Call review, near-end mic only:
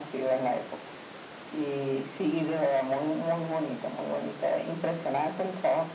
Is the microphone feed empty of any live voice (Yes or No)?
Yes